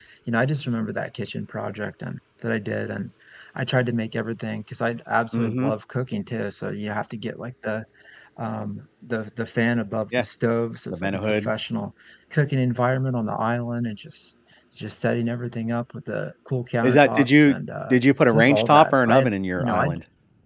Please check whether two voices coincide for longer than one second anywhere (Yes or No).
Yes